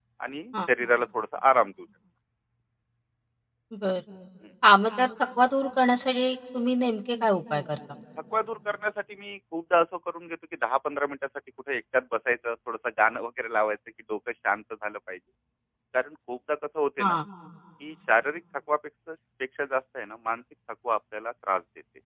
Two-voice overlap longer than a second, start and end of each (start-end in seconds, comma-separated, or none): none